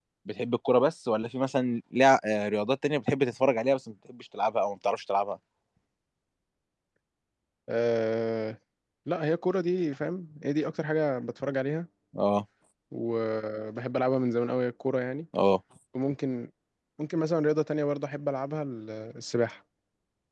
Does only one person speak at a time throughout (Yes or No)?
Yes